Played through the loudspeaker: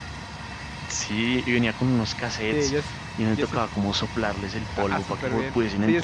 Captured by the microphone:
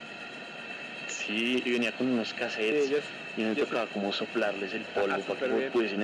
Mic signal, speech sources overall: echo only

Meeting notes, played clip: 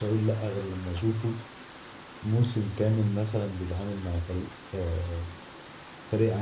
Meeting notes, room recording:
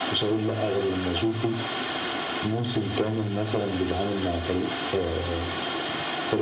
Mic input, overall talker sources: echo only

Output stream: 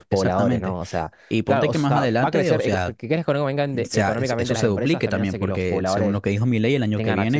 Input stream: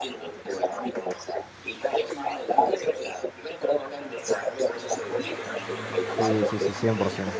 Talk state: both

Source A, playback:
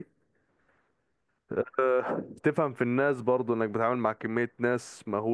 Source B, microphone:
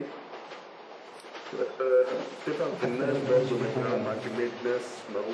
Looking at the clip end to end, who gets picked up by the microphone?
both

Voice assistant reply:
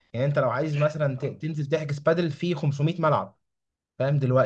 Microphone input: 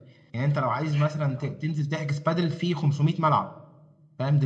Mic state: echo only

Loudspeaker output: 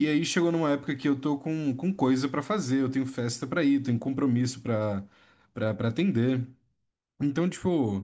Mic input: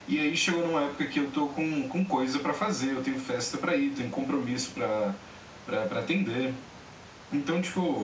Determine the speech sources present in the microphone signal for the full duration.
echo only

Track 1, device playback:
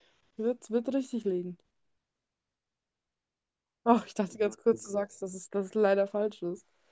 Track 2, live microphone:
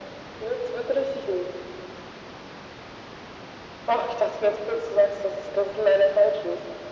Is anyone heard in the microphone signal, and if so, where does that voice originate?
echo only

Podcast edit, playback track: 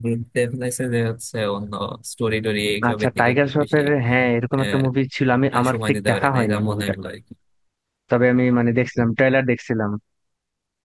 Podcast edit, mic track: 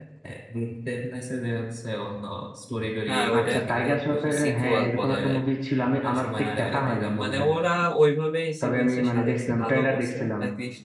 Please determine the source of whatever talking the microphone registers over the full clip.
both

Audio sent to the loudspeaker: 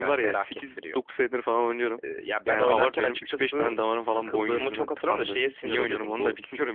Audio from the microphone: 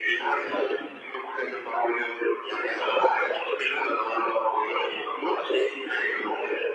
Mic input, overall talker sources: echo only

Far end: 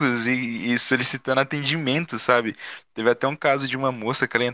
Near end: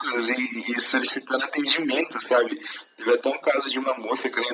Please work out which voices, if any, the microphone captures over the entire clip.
echo only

